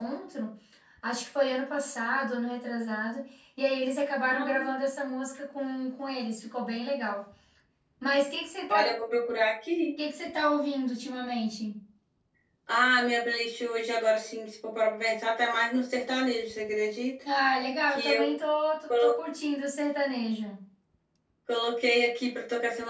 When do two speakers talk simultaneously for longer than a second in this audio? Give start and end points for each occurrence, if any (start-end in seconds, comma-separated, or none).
none